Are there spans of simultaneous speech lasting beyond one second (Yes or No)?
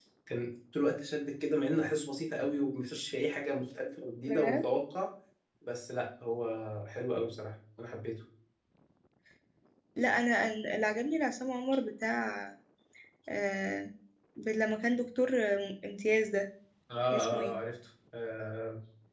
No